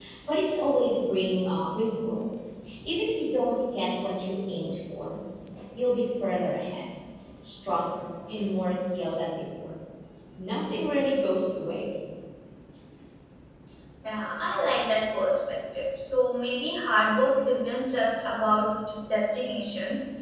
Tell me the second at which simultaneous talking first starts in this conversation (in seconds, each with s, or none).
none